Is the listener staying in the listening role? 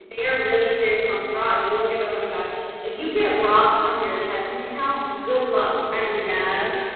No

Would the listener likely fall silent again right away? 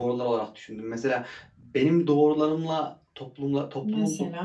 Yes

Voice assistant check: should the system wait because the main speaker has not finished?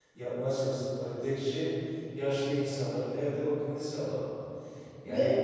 Yes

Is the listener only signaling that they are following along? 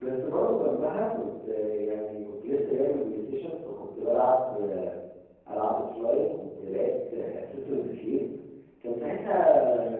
Yes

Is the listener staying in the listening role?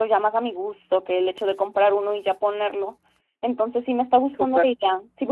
Yes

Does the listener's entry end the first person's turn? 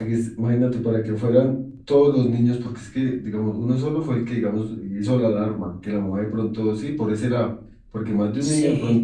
No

